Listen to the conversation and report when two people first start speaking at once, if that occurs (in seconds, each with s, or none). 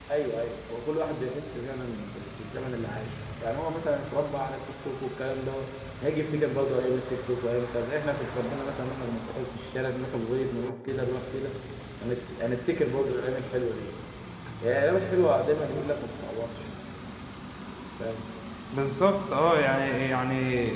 none